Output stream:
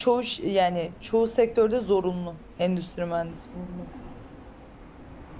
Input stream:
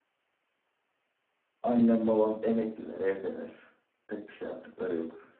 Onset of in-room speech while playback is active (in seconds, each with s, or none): 1.6 s